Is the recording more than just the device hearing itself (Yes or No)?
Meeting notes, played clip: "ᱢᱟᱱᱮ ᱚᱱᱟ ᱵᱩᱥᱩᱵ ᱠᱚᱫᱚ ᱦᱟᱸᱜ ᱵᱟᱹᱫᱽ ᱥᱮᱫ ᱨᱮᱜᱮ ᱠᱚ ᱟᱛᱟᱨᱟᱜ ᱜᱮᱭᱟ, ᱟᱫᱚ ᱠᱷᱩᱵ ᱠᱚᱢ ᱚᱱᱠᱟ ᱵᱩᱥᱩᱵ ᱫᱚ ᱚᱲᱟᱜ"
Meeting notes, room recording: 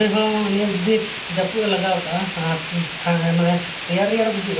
Yes